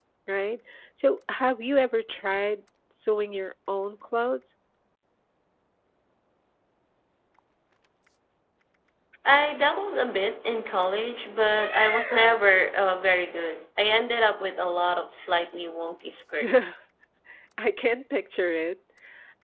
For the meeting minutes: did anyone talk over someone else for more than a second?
No

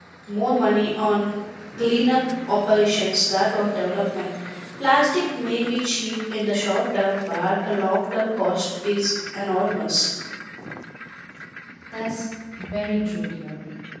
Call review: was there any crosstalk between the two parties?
No

